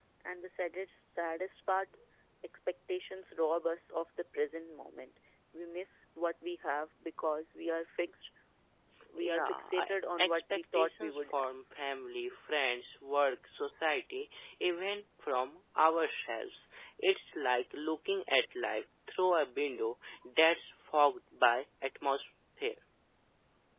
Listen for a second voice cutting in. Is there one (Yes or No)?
Yes